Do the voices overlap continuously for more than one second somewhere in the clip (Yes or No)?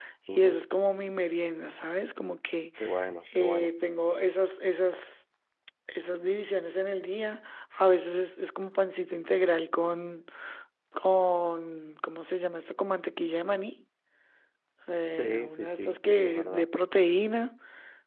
Yes